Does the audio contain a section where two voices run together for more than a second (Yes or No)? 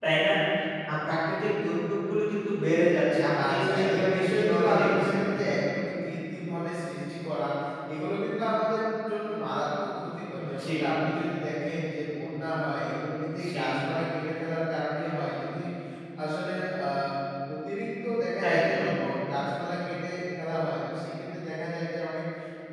Yes